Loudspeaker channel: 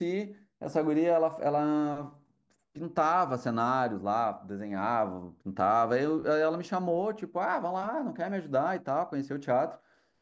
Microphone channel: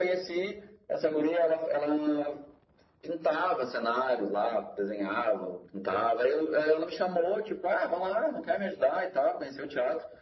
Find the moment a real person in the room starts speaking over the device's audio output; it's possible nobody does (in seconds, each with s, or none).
none